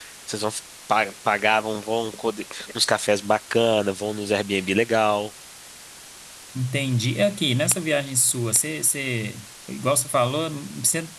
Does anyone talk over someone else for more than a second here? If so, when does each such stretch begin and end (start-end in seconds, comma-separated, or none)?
none